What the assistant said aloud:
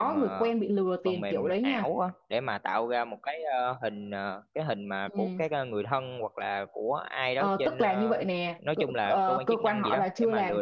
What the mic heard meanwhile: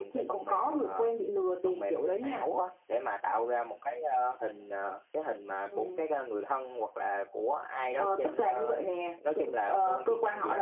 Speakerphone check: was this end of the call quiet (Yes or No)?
Yes